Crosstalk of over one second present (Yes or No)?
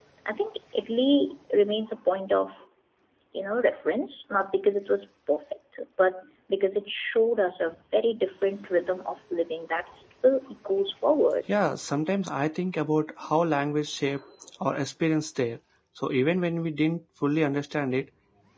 No